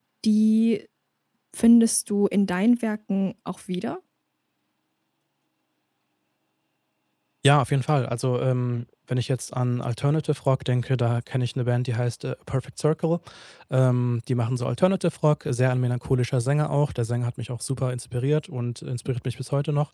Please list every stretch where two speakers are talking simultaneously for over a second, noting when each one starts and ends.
none

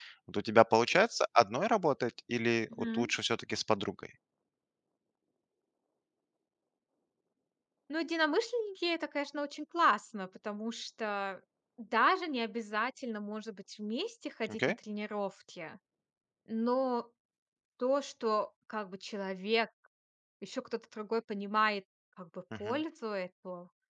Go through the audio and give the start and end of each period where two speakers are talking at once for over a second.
none

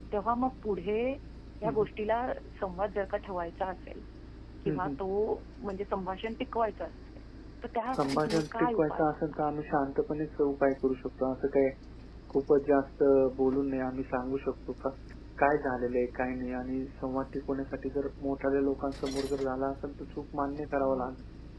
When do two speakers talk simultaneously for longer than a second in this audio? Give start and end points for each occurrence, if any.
7.9-9.4

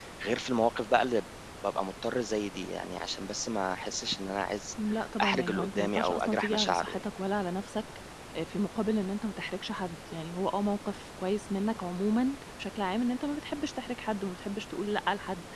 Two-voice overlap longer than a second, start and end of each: 5.2-7.0

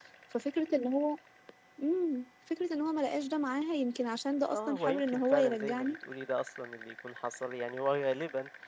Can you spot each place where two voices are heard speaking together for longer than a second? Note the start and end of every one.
4.5-6.0

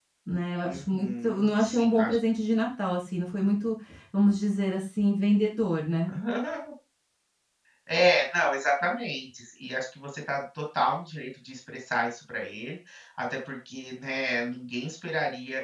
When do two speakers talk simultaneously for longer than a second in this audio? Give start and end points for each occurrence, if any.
0.7-2.2

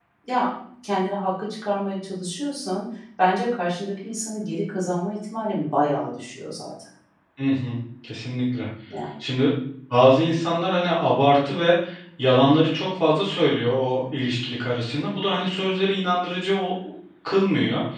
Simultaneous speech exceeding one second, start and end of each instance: none

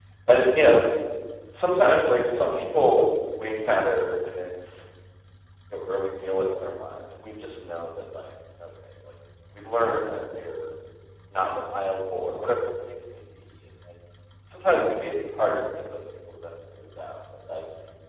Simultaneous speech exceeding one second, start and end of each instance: none

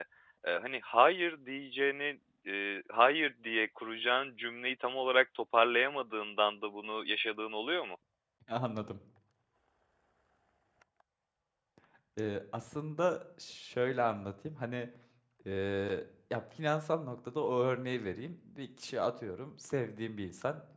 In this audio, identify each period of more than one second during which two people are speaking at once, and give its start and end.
none

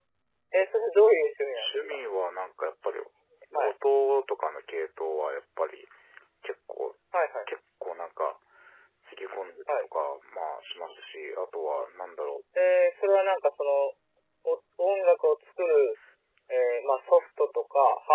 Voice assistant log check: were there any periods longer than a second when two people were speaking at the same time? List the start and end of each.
none

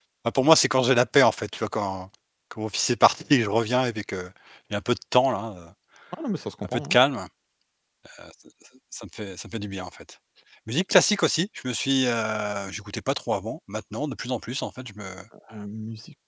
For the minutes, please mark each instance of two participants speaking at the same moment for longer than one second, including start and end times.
none

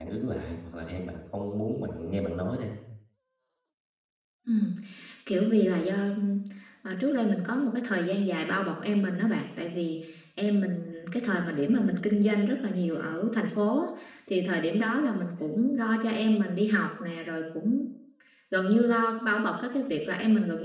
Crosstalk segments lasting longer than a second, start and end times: none

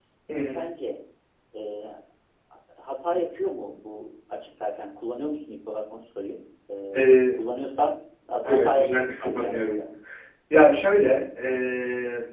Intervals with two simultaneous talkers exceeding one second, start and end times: 8.4-9.8

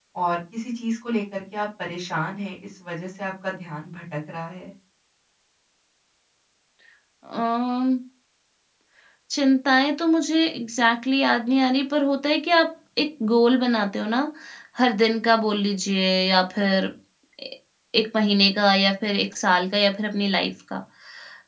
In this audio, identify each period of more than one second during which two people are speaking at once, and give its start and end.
none

